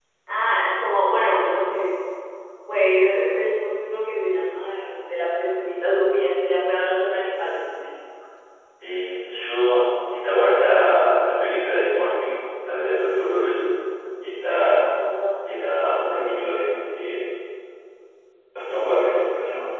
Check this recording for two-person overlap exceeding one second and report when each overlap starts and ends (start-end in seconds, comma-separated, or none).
none